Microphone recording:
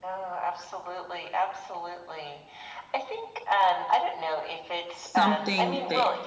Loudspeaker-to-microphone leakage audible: Yes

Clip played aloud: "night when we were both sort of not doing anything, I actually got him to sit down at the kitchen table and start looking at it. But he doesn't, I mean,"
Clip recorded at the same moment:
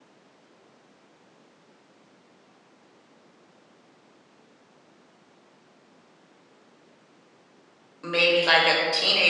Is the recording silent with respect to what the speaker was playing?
Yes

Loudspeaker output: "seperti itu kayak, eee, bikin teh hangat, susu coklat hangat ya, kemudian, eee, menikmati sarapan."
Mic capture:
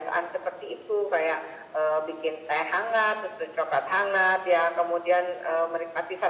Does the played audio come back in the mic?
Yes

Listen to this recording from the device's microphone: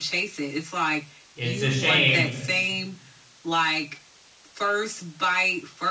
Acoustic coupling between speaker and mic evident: Yes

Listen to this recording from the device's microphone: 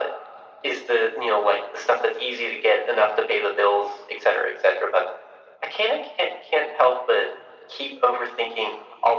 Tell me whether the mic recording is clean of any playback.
No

